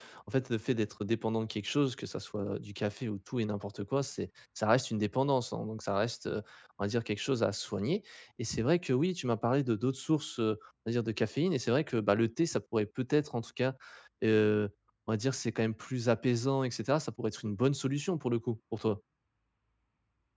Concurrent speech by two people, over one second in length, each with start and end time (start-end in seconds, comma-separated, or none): none